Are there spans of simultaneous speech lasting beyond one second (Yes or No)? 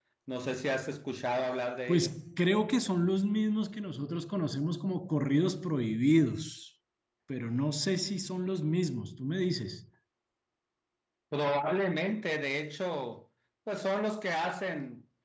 No